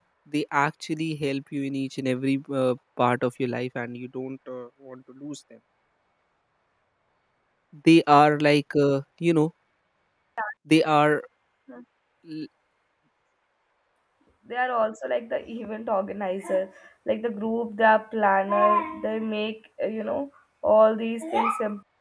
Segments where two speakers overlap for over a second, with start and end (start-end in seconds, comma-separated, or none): none